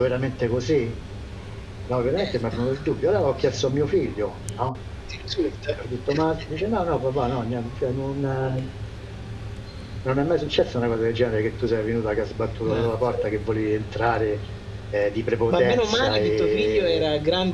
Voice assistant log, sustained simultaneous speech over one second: present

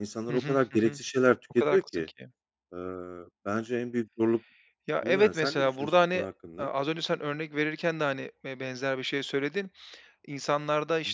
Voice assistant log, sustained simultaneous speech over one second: present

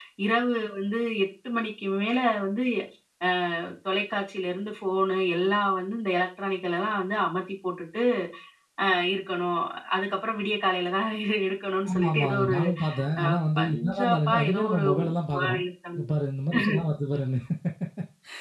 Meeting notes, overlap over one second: present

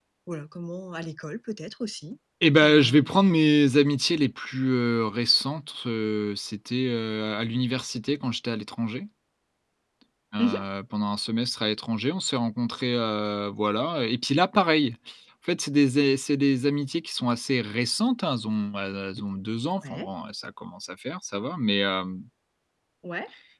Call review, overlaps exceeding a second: none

